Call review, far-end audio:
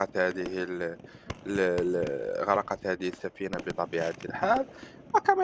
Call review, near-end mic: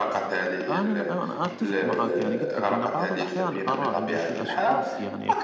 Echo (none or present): present